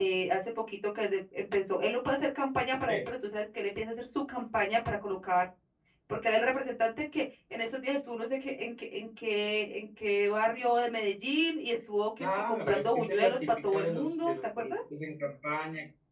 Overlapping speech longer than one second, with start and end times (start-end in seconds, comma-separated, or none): 12.2-14.7